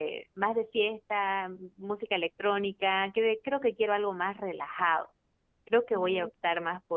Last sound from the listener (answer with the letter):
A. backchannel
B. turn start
A